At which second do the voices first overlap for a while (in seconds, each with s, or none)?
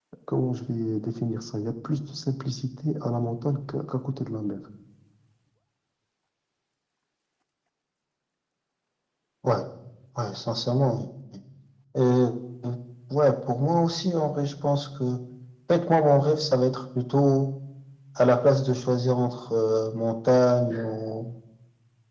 none